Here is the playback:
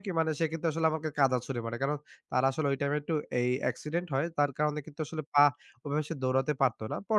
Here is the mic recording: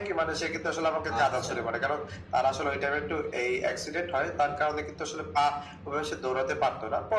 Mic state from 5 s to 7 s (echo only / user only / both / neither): echo only